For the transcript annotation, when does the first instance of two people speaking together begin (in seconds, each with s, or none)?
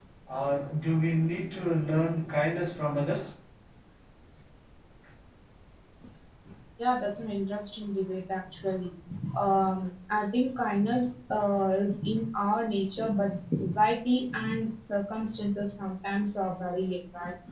none